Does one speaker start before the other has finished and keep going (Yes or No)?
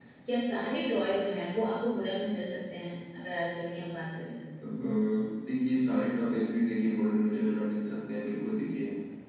No